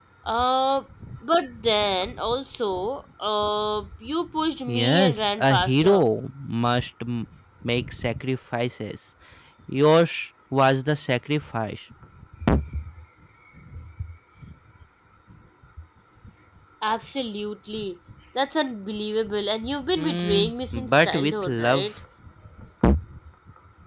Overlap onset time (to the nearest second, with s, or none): 5 s